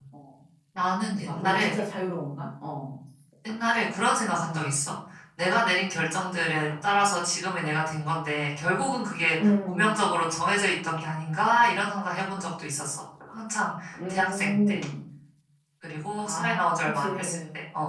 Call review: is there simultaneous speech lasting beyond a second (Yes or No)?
Yes